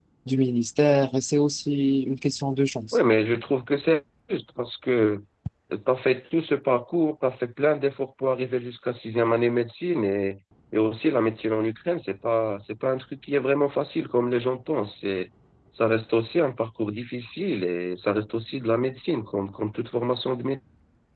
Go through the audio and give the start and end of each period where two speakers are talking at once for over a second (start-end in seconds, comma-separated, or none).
none